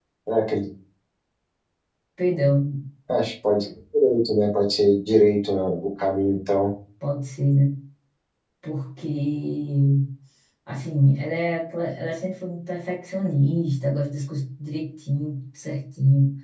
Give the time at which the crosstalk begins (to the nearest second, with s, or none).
none